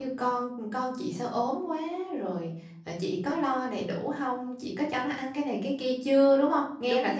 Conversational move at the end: taking over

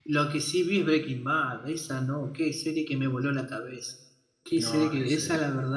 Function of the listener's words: listening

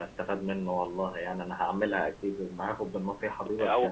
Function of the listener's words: taking over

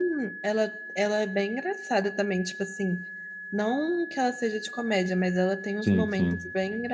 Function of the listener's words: listening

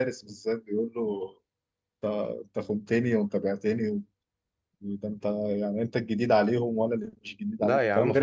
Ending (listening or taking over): taking over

